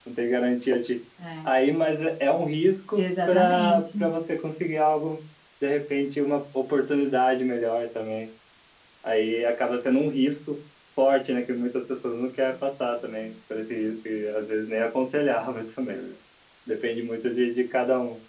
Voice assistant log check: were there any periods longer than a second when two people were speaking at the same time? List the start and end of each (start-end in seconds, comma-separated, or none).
2.9-4.2